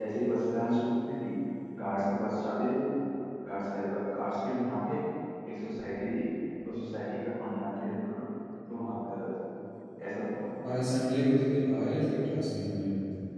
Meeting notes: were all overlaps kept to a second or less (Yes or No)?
Yes